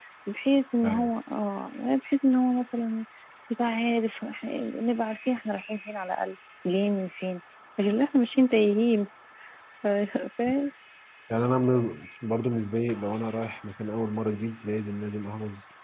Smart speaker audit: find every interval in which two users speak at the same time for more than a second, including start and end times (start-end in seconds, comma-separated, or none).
none